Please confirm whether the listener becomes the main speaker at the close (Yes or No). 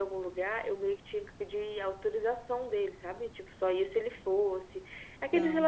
No